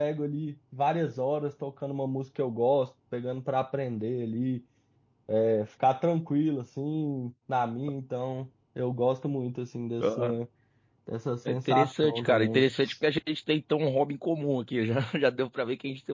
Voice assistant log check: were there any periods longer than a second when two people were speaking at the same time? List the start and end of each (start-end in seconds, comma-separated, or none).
11.5-12.7